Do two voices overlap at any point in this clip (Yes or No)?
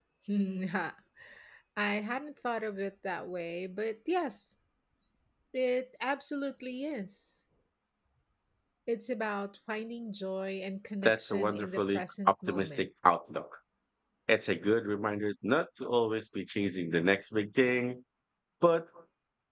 Yes